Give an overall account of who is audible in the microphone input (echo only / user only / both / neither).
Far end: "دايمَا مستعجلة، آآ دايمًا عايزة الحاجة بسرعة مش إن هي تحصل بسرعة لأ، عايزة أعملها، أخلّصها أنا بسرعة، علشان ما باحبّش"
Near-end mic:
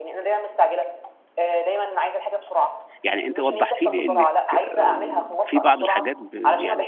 both